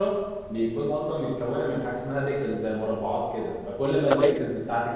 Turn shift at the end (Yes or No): No